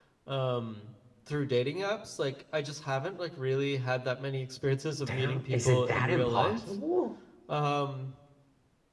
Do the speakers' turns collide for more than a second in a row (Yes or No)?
Yes